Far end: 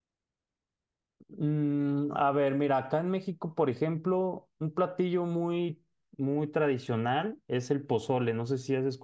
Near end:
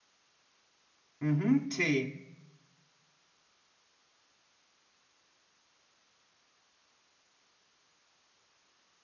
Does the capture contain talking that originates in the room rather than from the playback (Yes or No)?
Yes